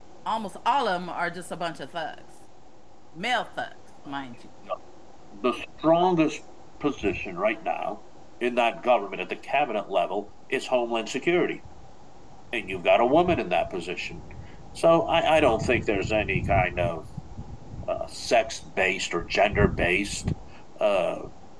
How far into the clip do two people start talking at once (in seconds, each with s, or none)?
none